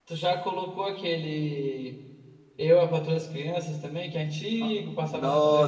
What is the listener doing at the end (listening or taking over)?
taking over